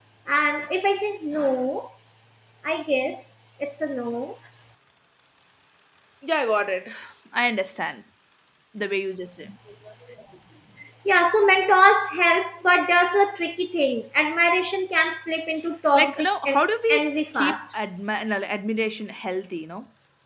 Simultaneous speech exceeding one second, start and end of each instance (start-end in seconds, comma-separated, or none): 15.9-17.6